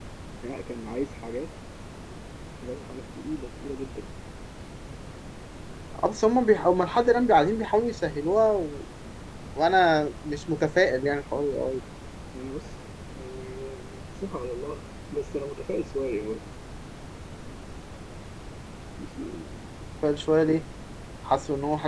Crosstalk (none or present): none